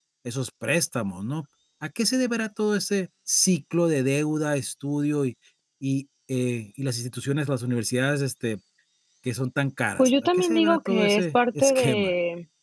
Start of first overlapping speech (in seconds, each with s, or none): 10.0 s